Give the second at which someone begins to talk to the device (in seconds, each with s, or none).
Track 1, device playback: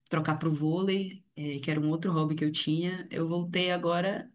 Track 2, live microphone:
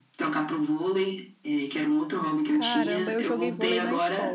2.5 s